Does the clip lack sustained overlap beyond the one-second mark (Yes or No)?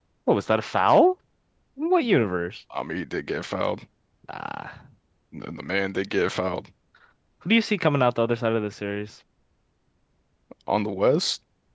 Yes